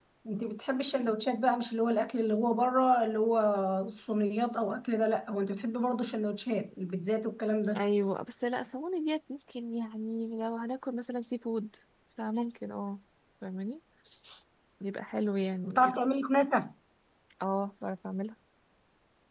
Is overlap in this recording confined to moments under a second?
Yes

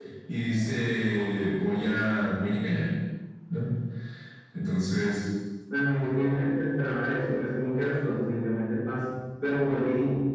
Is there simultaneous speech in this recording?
No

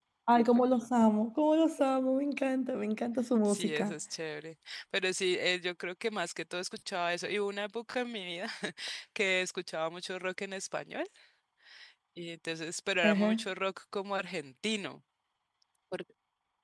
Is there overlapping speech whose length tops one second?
No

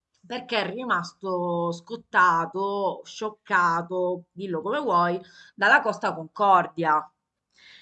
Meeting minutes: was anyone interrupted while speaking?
No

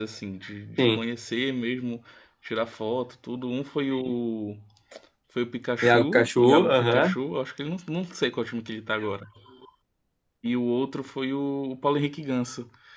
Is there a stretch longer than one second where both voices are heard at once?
Yes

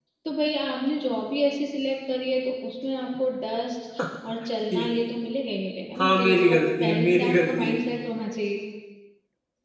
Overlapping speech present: Yes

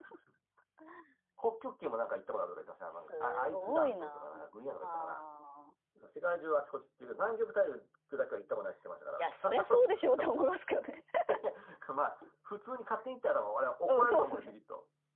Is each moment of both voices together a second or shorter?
No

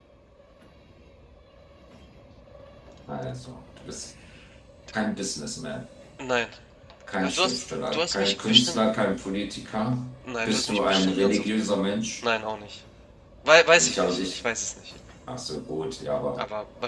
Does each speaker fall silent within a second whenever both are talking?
No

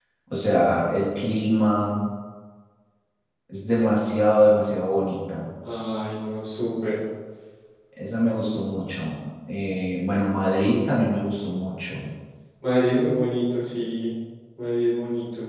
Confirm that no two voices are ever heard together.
Yes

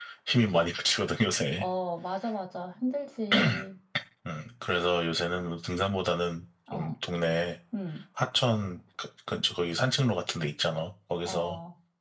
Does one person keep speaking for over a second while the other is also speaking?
No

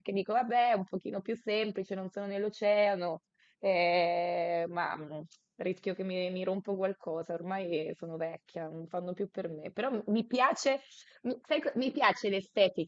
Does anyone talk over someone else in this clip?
No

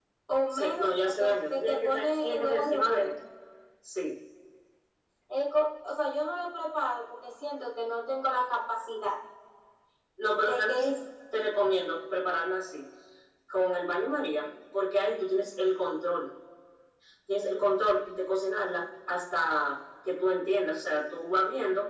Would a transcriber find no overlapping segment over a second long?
No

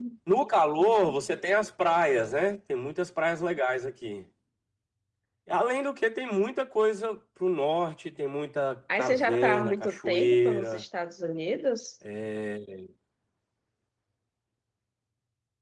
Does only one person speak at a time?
No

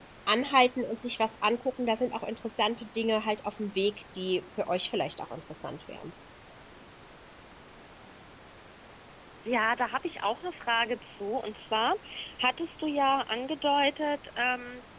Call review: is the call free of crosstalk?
Yes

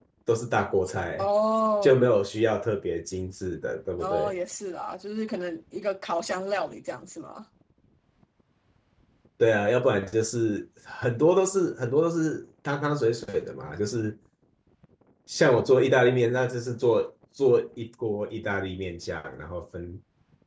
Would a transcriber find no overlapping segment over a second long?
Yes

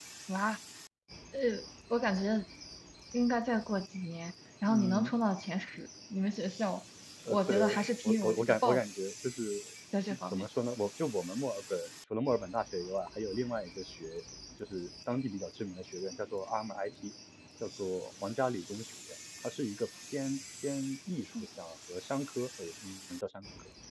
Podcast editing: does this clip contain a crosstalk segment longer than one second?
Yes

